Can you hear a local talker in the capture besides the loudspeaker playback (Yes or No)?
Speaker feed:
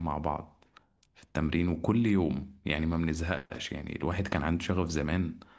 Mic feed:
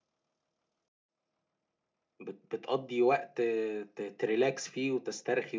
Yes